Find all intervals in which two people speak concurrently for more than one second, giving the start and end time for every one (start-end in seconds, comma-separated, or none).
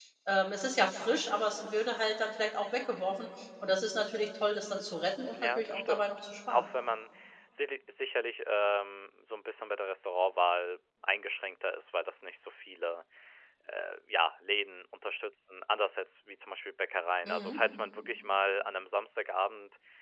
5.3-6.7